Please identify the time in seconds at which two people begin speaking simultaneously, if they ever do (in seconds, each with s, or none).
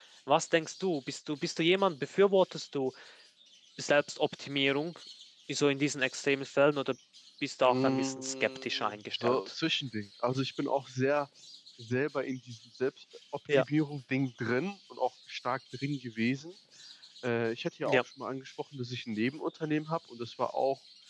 7.7 s